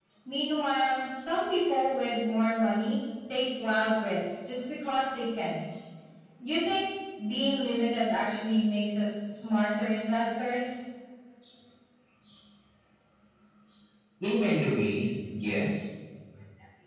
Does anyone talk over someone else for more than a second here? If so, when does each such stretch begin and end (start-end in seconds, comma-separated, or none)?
none